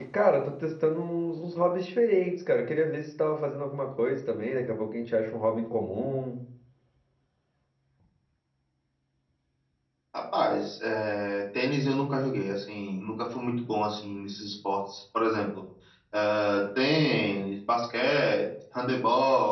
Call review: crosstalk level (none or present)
none